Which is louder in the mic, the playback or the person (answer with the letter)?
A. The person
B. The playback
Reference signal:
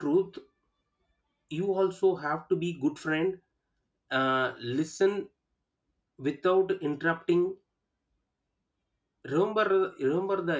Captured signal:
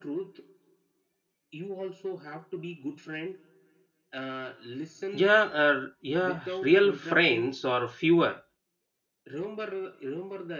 A